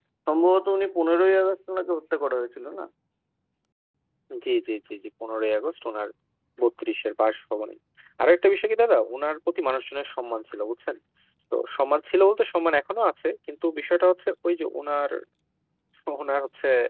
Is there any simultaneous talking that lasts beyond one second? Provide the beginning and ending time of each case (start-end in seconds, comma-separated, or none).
none